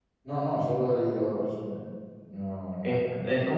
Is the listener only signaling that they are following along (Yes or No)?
No